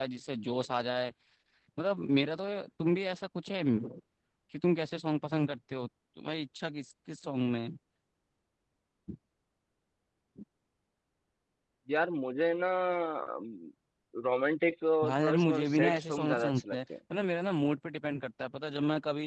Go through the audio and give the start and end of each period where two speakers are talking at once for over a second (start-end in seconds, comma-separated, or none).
15.0-16.8